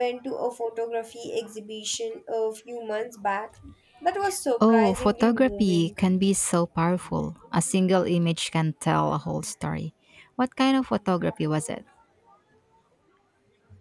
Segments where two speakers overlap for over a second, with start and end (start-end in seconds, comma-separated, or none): 4.6-5.9